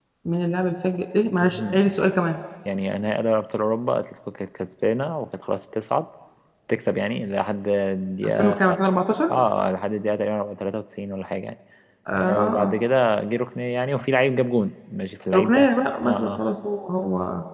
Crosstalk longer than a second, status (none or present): none